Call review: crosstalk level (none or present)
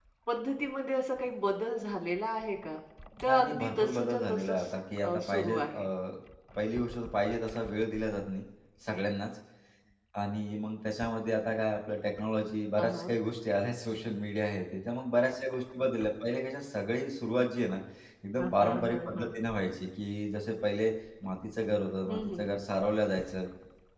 present